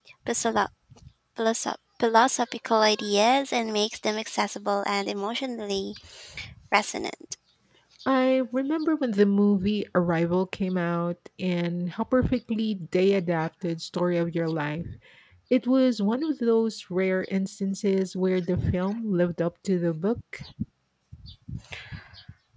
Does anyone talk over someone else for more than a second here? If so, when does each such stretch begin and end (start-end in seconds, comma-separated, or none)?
none